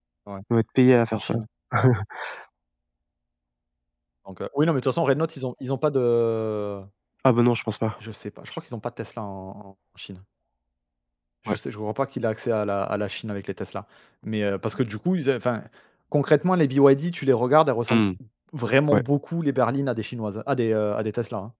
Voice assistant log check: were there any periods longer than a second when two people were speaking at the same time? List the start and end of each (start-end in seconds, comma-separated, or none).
none